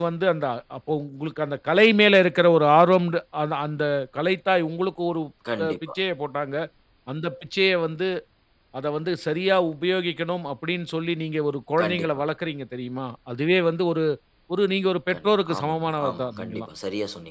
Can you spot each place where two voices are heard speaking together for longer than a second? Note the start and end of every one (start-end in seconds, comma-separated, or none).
15.1-16.7